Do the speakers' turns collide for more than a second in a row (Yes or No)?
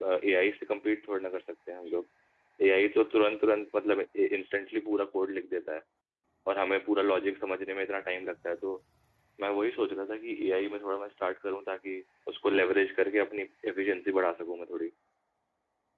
No